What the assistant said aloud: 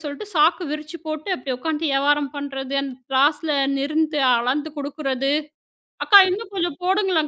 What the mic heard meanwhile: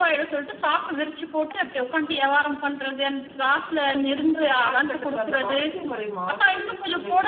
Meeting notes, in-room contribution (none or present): present